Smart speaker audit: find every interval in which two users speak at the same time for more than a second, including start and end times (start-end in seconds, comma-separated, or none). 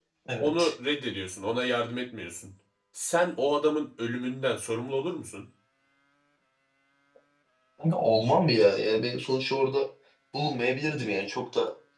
none